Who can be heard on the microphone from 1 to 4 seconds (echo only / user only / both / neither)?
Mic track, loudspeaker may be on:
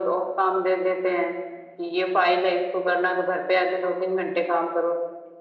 echo only